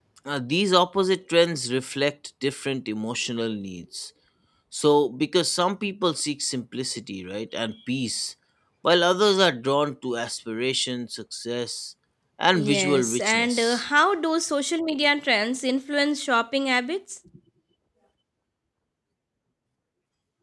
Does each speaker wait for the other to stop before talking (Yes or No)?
No